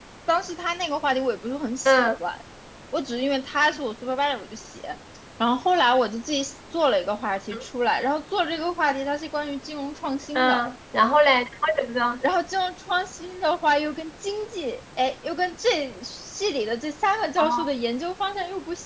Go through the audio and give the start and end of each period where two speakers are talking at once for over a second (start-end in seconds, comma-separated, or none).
none